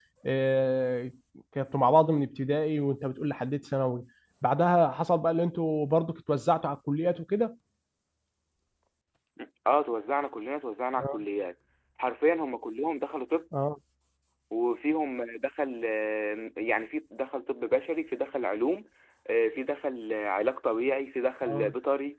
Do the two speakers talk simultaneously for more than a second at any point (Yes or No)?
No